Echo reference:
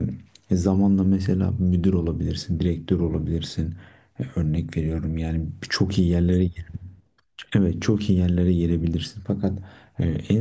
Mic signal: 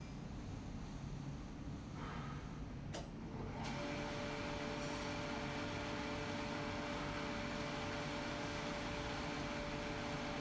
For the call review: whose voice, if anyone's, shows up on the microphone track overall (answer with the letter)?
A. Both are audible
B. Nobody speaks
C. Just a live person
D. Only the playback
B